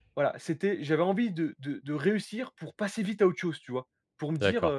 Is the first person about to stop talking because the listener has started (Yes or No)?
No